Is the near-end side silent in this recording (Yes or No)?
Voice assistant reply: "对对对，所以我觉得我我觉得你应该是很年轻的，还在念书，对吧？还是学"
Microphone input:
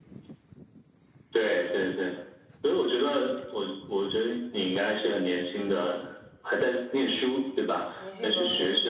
No